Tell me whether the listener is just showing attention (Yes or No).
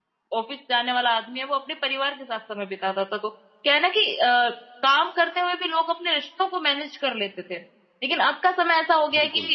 Yes